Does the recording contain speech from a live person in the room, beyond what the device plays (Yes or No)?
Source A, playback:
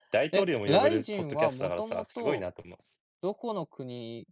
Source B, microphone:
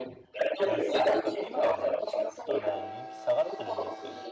Yes